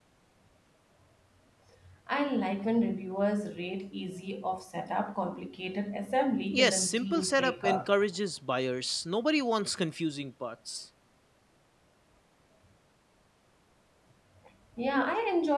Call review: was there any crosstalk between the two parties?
Yes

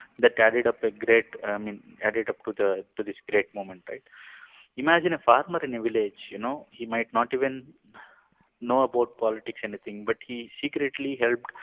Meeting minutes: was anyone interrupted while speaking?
No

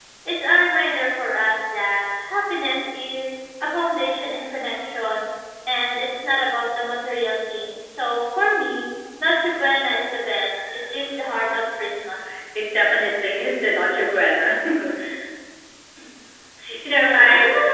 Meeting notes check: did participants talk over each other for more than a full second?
No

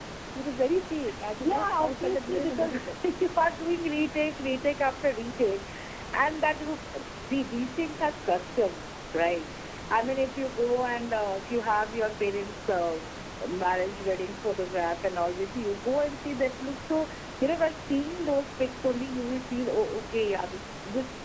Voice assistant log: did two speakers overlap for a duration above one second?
Yes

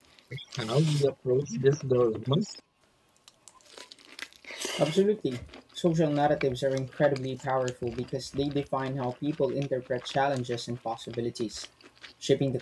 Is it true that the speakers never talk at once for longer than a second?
Yes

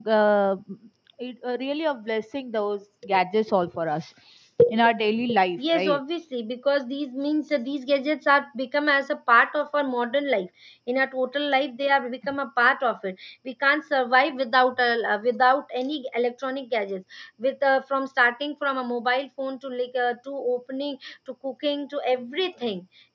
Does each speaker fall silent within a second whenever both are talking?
Yes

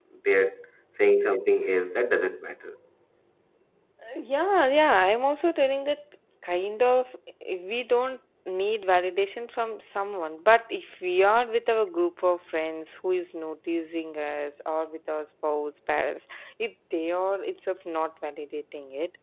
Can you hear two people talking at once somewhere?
No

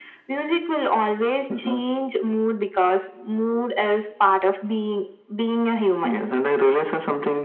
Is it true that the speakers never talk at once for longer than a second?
Yes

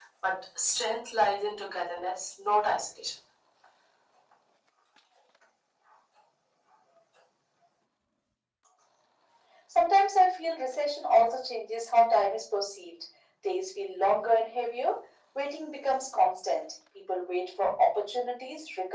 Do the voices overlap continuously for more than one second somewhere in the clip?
No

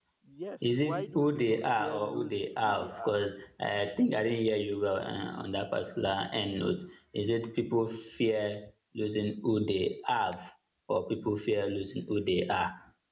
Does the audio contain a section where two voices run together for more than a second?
Yes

